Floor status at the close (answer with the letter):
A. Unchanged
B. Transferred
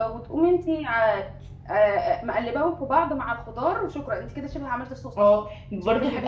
B